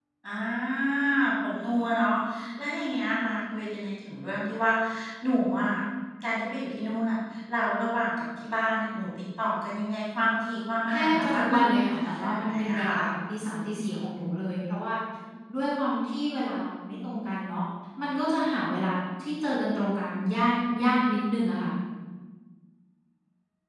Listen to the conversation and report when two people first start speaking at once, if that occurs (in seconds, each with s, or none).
10.9 s